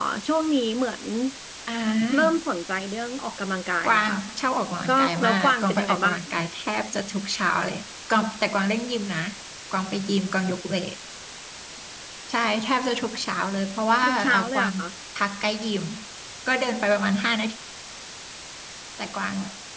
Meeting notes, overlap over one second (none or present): present